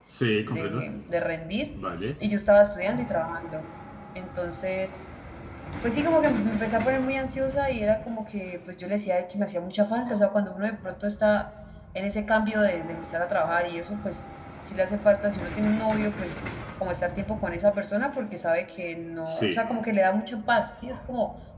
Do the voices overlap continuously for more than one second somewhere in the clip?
No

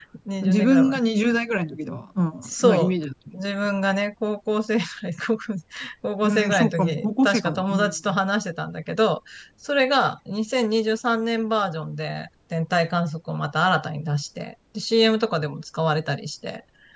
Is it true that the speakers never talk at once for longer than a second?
No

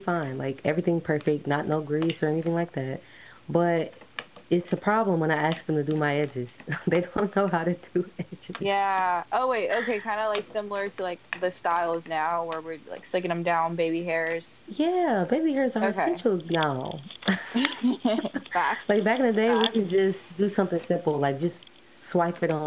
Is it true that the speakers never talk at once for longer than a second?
Yes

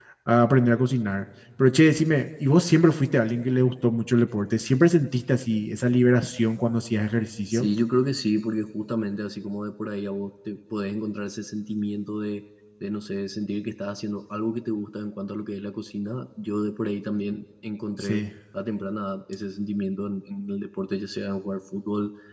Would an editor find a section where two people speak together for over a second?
No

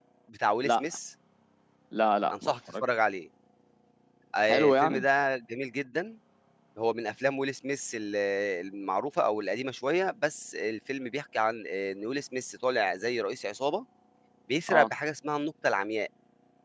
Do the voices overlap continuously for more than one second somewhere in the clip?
No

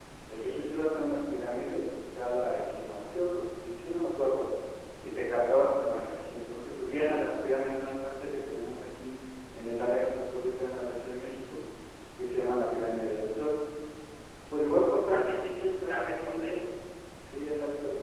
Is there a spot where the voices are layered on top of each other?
Yes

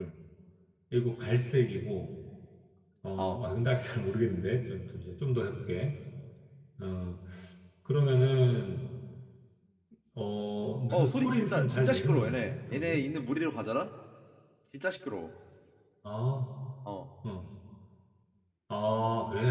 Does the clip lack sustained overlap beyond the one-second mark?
No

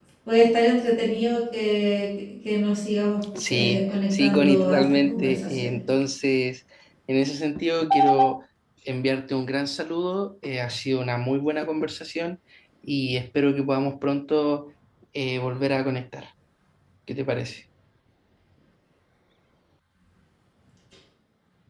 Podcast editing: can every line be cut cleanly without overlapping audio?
No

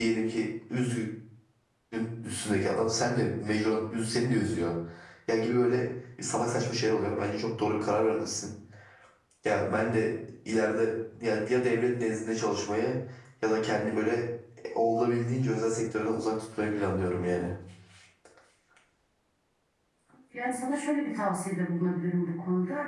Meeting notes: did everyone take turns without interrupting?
Yes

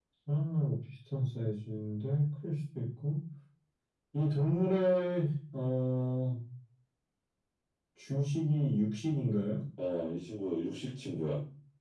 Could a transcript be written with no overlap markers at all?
Yes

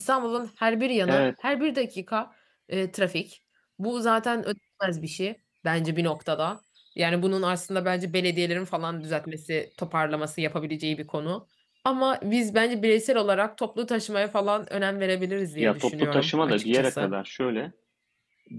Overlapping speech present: Yes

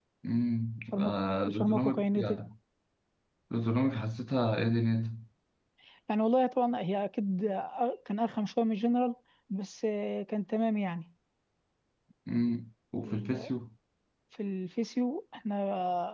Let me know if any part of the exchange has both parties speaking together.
Yes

